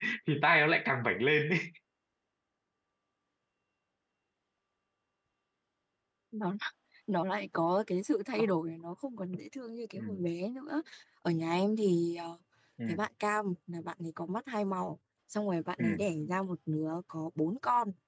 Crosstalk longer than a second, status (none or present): none